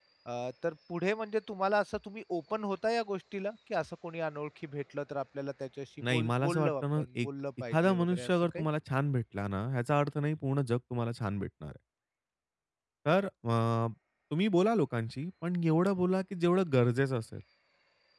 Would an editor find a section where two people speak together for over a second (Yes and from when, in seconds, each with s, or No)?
Yes, from 6.0 s